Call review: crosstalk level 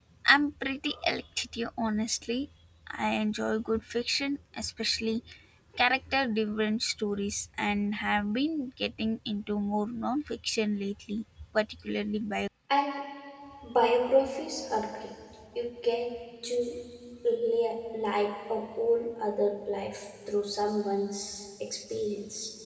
none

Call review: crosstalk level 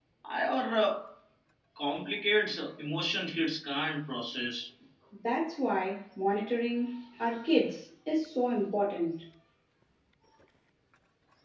none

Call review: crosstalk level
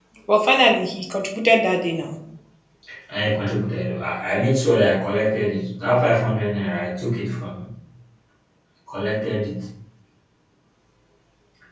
none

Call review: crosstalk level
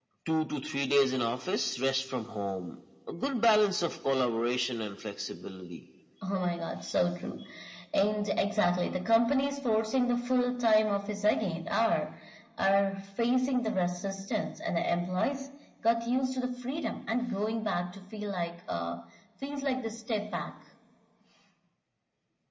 none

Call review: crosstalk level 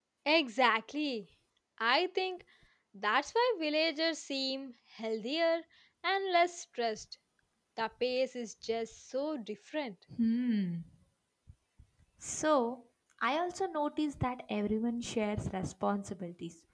none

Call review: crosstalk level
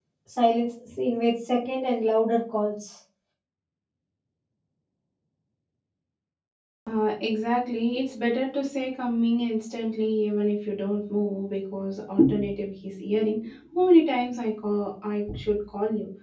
none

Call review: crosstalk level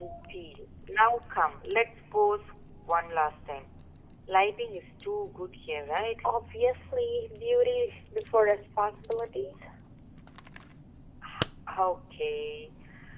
none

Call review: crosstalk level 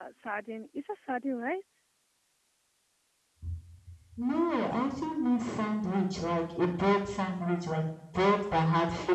none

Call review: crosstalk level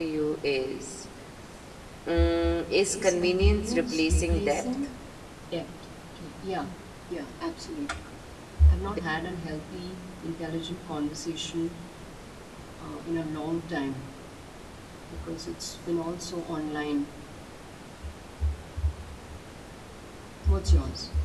present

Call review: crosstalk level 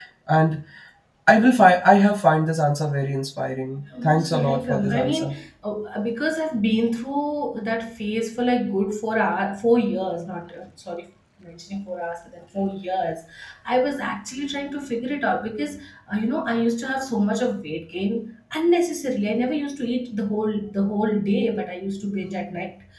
present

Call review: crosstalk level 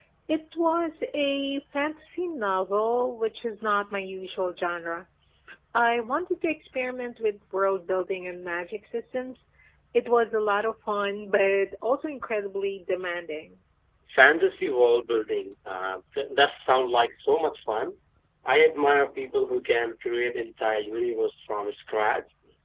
none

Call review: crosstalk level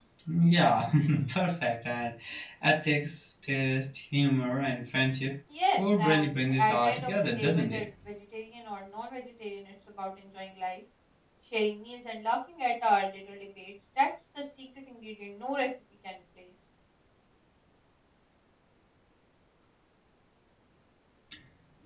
present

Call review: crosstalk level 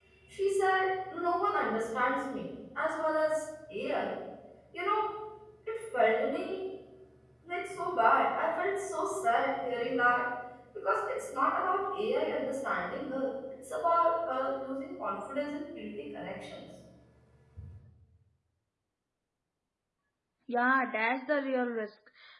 none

